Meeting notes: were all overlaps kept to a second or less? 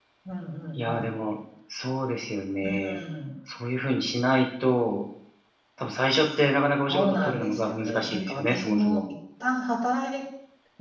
No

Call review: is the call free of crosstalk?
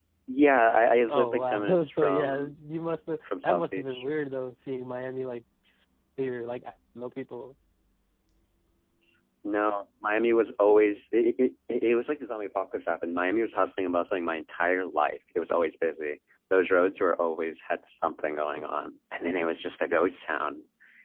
No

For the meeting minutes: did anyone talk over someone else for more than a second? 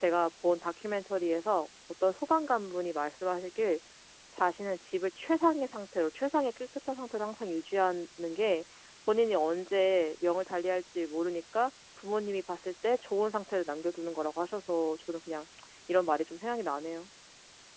No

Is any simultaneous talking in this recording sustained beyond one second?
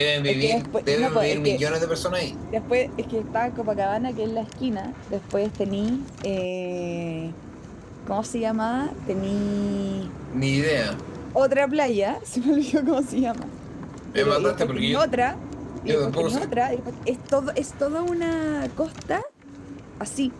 Yes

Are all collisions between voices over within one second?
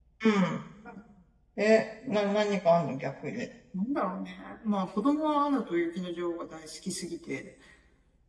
Yes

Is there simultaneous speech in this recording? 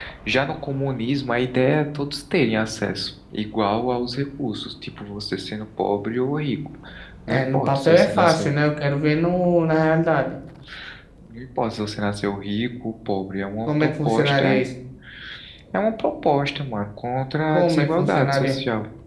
Yes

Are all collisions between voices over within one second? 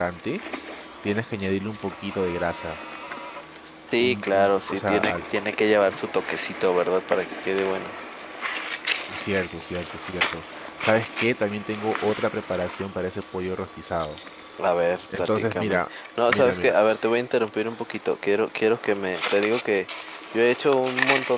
No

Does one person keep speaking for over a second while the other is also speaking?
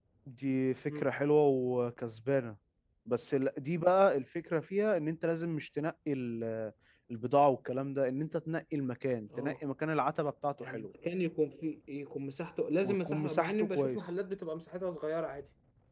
Yes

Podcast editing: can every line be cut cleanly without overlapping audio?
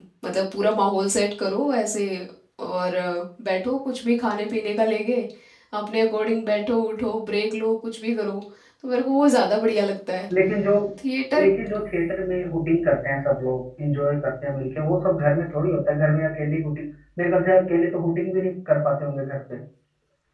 Yes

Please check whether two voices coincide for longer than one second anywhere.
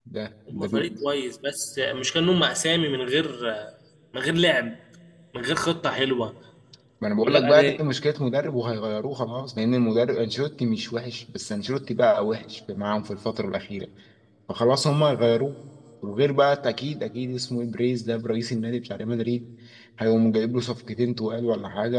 No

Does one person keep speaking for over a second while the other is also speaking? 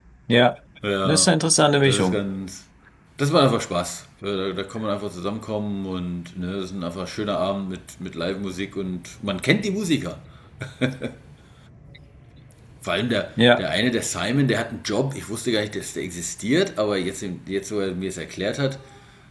No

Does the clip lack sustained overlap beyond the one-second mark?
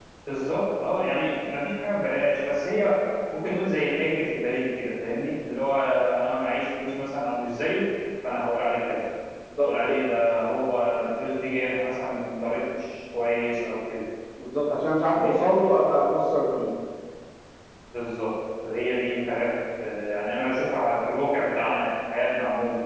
Yes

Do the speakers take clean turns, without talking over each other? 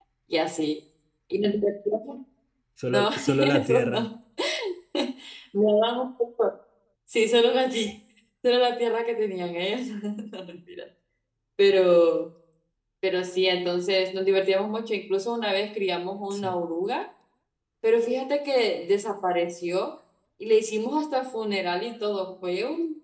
No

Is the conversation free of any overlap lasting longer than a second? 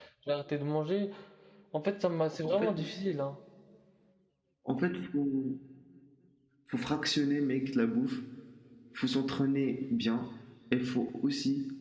Yes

